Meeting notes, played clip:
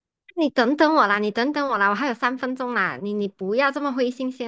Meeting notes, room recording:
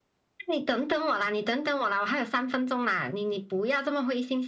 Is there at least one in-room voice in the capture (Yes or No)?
No